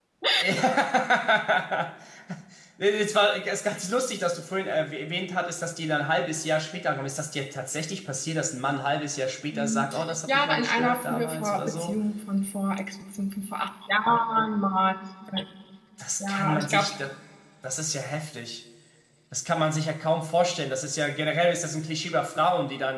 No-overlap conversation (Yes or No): No